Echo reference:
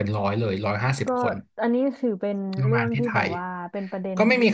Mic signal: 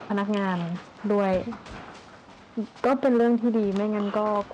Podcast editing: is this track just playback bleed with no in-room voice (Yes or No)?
No